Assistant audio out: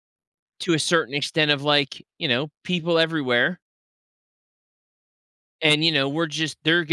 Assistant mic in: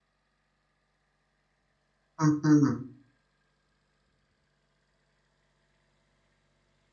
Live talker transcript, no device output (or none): mhm.